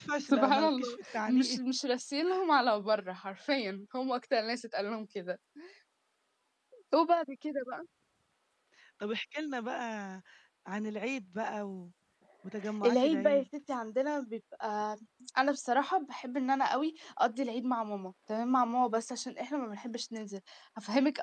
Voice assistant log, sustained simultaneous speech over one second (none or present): present